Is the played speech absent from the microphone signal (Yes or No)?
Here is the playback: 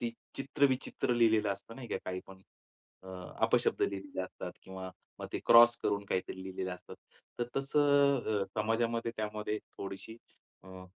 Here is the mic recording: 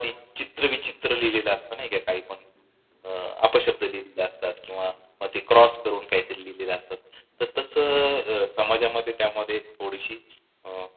No